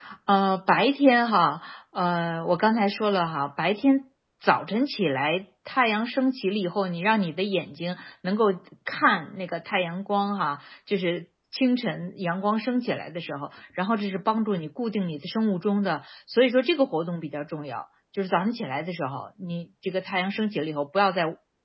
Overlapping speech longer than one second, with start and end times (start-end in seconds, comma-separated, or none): none